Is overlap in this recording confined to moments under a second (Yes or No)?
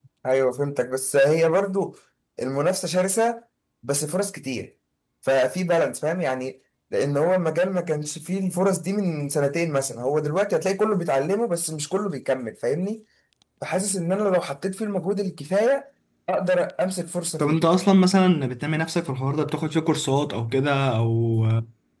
Yes